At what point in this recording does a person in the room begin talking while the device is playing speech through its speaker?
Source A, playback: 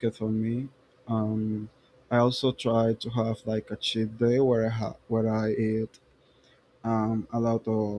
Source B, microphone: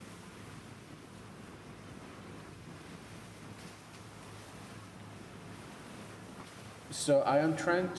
7 s

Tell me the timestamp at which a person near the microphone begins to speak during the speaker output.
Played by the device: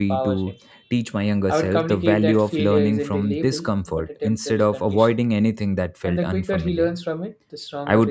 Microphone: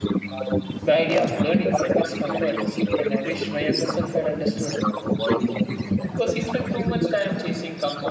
1 s

